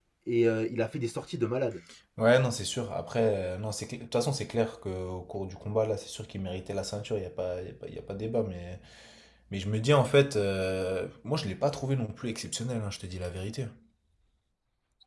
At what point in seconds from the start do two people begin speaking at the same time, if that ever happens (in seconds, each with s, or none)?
none